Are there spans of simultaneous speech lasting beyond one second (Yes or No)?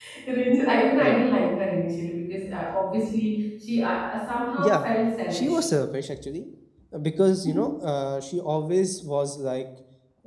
No